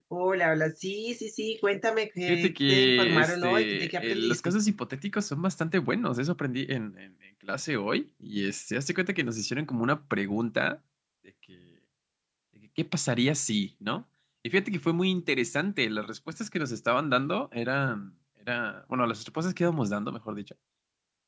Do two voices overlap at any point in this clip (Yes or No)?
Yes